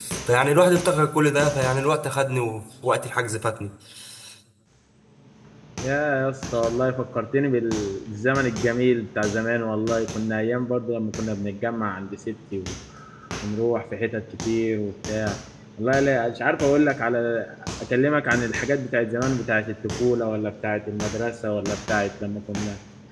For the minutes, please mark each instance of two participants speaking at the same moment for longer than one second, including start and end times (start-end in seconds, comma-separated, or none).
none